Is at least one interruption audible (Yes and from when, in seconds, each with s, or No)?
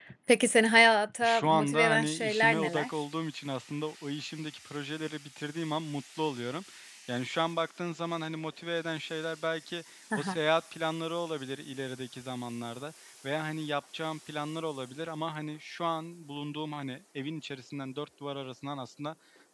Yes, from 1.2 s